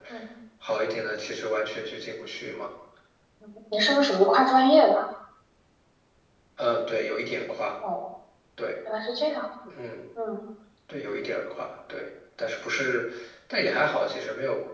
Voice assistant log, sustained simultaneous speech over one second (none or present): none